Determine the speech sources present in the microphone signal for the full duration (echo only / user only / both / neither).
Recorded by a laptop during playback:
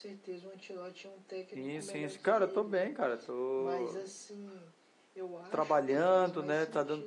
both